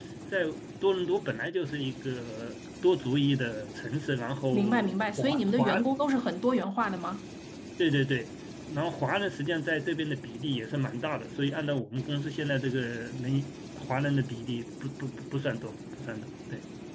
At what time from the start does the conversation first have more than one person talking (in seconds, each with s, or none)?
4.5 s